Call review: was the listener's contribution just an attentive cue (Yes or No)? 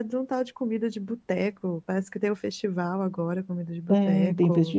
No